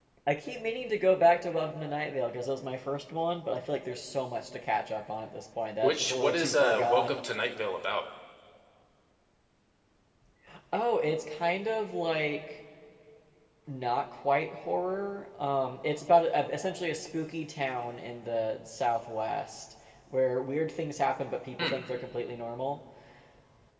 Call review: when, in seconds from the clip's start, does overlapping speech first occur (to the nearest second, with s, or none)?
6 s